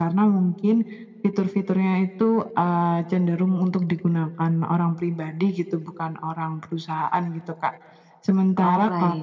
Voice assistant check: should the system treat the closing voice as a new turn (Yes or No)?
No